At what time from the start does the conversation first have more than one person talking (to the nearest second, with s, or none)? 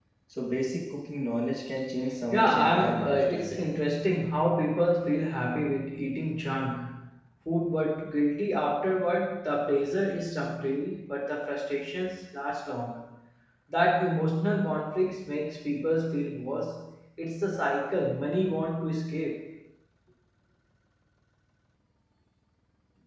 2 s